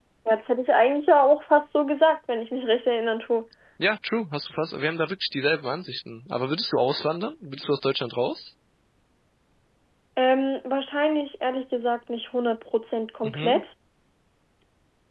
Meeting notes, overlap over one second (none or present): none